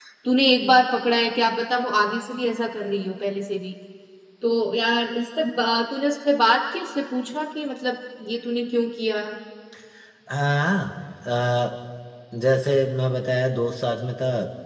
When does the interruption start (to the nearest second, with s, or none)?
none